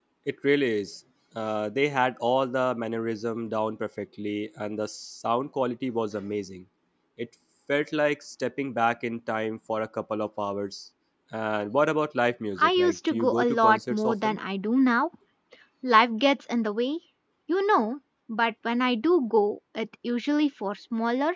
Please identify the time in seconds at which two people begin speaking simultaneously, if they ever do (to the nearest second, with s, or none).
13 s